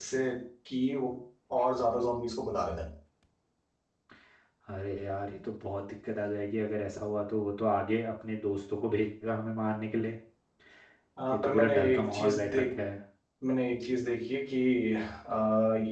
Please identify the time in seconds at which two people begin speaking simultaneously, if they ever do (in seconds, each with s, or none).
11.3 s